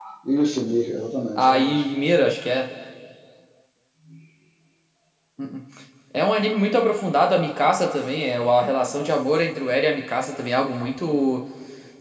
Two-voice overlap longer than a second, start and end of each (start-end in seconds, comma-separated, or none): none